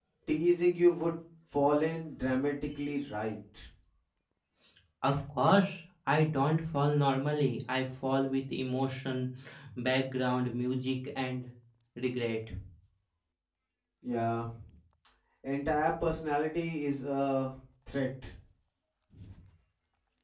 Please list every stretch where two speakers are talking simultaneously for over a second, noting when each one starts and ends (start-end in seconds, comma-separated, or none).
none